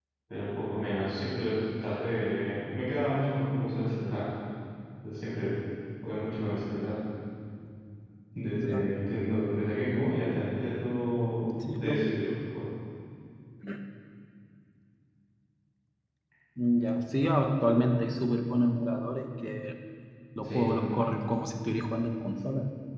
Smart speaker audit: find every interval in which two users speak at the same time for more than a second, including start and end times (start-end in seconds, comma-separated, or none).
none